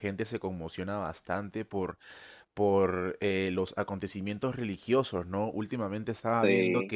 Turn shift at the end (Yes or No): No